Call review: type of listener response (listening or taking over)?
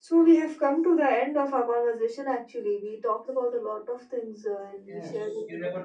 taking over